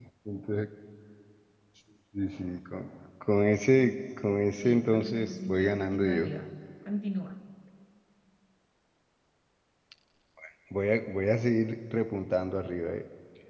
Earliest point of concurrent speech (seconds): 5 s

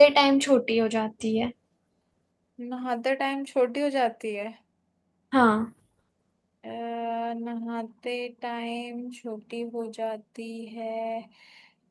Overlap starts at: none

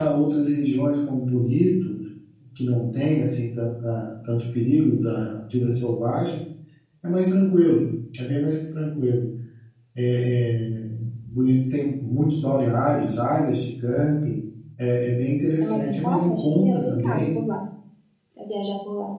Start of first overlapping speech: 16 s

